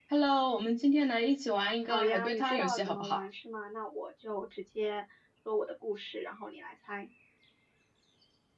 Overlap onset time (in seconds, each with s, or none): 1.9 s